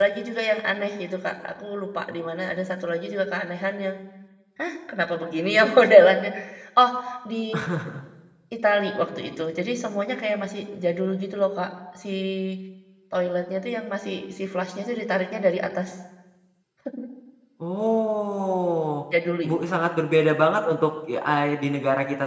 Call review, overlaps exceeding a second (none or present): none